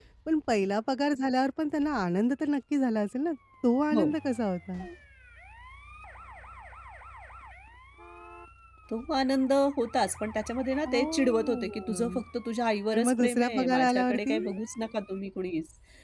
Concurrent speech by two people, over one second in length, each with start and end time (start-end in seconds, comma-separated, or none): 10.9-12.2, 12.9-14.3